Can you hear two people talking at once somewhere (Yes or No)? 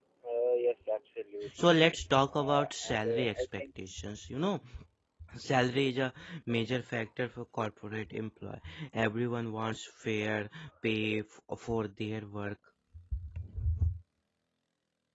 Yes